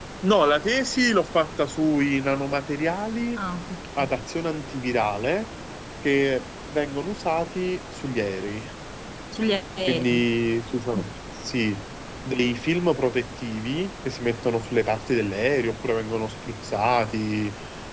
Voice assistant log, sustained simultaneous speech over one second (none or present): none